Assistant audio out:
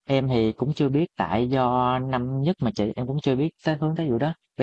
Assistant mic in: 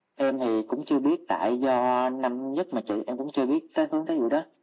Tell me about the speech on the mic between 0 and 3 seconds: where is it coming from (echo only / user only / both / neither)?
echo only